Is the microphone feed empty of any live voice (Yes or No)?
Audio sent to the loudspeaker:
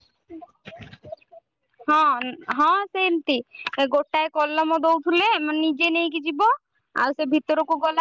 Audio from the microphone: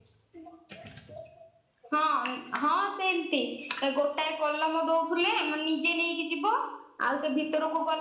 Yes